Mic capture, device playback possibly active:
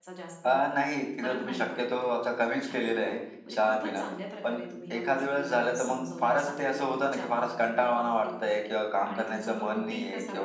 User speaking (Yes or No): Yes